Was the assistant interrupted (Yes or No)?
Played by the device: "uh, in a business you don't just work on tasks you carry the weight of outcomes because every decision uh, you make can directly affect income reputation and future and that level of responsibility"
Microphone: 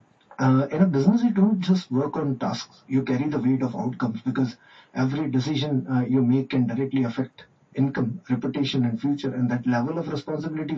No